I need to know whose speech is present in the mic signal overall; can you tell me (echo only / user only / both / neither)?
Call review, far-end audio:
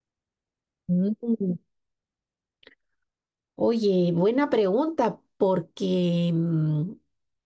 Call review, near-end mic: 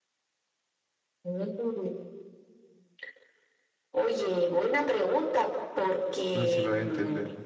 both